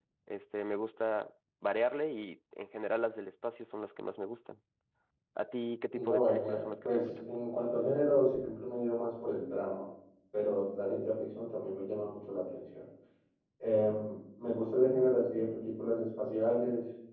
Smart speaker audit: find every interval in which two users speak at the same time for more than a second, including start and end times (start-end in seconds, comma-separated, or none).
5.9-7.2